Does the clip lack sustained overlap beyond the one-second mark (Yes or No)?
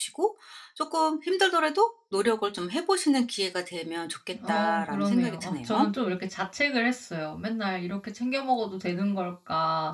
No